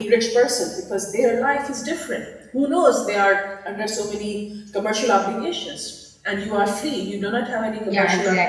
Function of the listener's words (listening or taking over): listening